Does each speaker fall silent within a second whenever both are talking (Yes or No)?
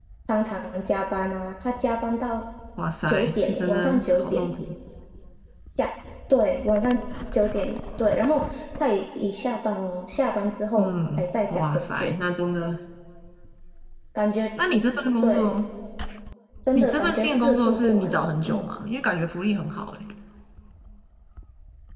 No